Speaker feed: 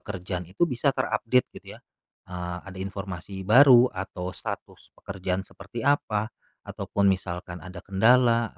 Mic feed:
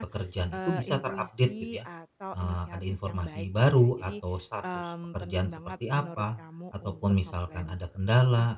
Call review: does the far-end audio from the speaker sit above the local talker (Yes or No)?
Yes